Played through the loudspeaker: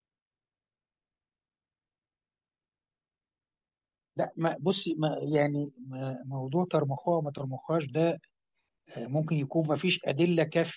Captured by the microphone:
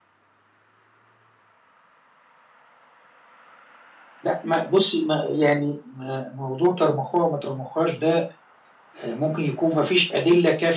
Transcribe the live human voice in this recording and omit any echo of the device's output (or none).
none